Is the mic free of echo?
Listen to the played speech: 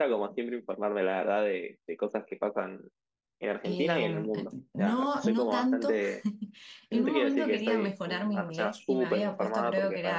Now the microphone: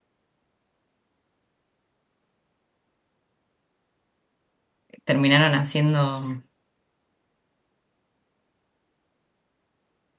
Yes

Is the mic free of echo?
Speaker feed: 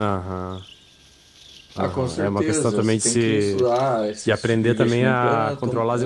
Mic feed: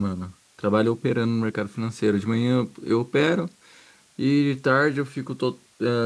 Yes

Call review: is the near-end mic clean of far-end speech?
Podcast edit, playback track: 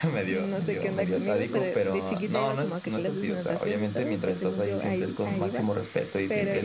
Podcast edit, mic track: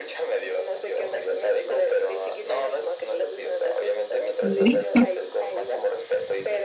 No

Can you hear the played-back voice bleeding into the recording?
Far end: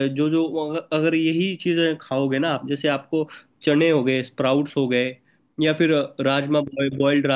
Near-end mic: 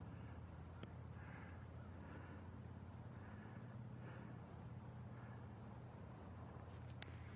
No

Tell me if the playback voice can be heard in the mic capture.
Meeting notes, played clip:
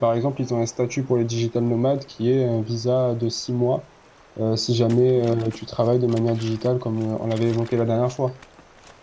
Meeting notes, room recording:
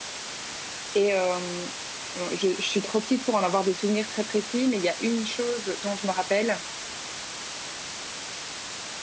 No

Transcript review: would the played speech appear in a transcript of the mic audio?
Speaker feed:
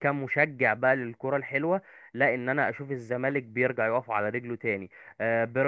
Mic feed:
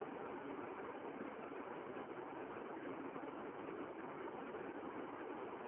No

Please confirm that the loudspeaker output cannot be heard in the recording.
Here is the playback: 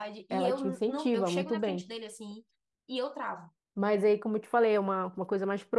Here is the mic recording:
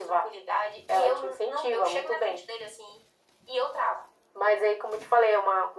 No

